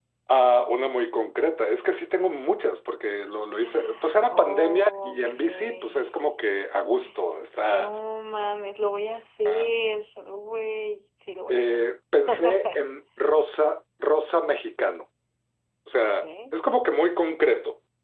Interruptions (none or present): present